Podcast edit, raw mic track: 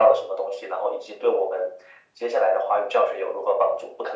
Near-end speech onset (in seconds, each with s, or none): none